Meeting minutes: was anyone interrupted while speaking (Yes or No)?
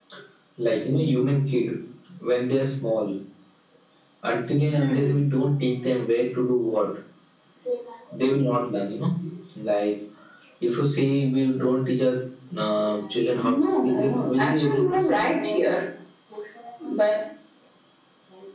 Yes